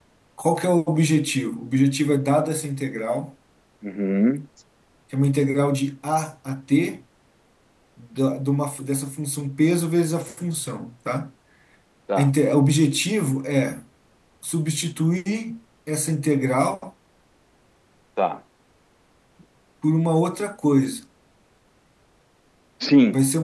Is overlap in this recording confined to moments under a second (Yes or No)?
Yes